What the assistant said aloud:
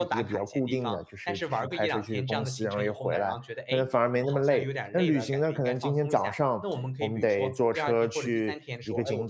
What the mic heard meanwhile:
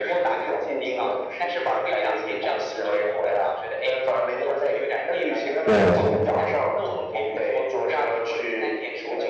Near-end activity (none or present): present